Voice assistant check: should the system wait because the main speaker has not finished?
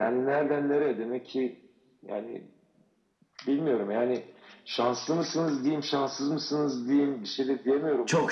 No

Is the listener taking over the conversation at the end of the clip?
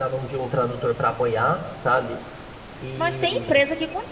Yes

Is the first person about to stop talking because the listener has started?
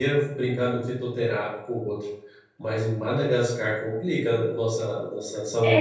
Yes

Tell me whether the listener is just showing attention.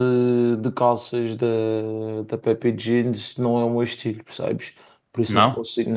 Yes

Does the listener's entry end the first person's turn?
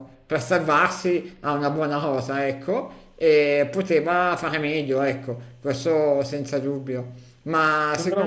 No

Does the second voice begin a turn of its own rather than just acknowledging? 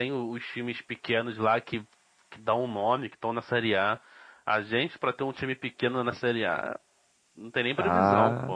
Yes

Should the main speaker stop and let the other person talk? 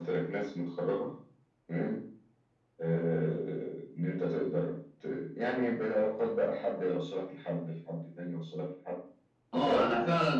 Yes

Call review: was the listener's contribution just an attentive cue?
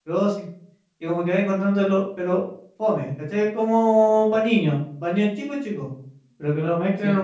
Yes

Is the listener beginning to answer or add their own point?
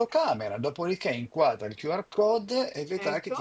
No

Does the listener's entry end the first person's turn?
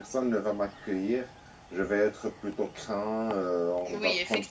Yes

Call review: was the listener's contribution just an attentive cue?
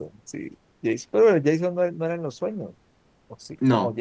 Yes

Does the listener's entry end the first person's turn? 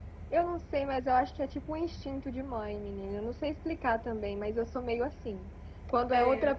No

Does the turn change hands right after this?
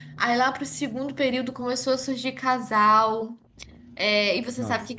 No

